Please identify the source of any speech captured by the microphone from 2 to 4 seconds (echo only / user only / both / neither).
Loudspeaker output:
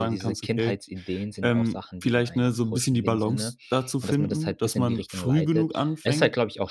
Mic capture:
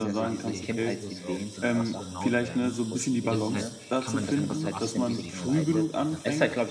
both